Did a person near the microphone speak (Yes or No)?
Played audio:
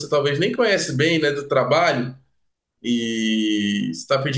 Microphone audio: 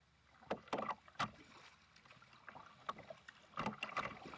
No